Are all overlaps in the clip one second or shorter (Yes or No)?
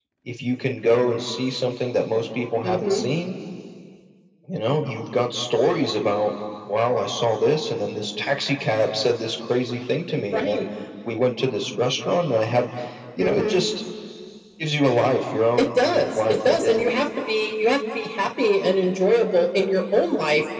No